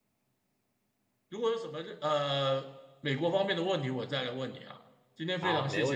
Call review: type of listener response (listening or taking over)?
taking over